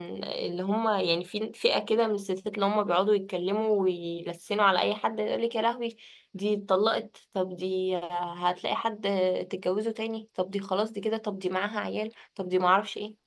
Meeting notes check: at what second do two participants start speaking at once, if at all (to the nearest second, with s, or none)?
none